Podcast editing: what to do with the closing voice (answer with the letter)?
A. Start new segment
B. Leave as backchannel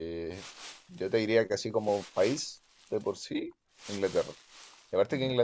B